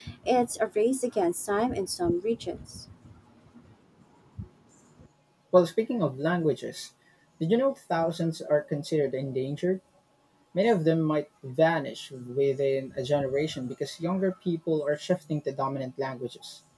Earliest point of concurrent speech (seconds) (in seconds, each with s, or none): none